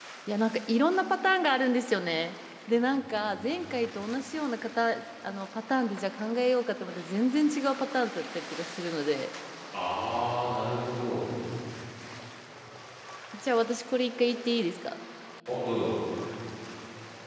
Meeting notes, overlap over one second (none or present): none